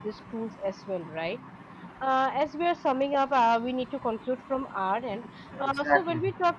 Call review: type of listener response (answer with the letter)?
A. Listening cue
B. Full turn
A